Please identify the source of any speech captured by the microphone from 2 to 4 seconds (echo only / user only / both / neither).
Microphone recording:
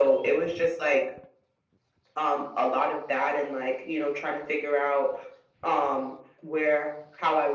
echo only